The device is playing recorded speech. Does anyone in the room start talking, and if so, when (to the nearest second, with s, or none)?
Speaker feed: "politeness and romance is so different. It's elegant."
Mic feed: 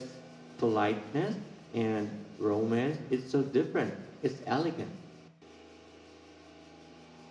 none